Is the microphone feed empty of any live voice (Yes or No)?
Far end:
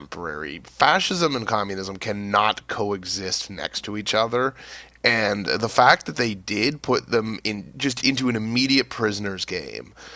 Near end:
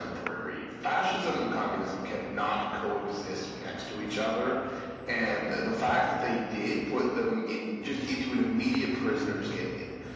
Yes